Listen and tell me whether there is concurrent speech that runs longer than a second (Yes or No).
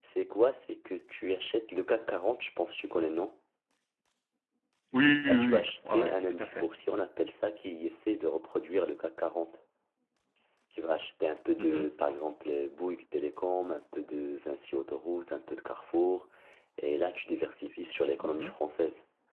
Yes